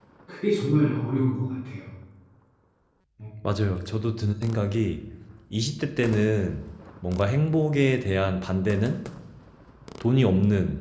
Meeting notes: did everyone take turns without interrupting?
Yes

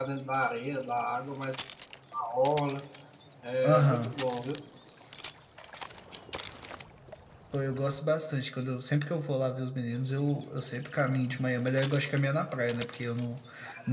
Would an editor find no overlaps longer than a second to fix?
Yes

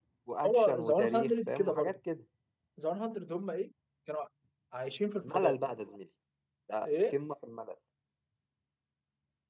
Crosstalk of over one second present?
Yes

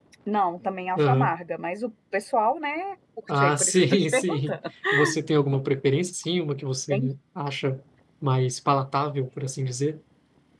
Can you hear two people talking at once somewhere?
Yes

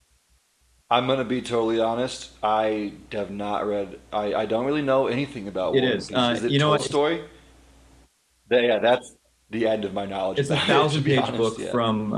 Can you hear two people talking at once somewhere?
Yes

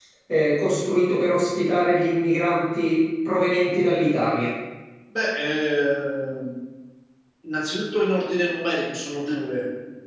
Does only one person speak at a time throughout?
Yes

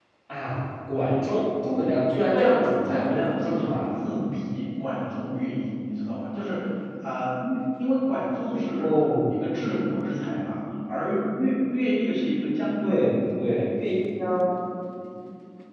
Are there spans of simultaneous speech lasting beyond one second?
Yes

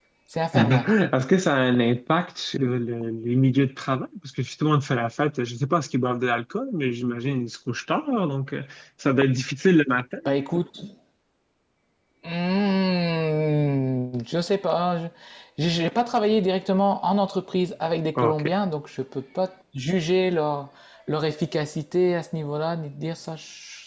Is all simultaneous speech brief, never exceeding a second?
Yes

